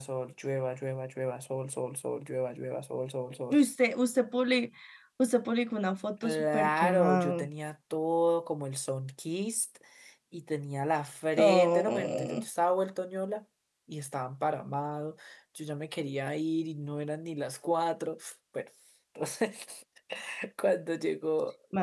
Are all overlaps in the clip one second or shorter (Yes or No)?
No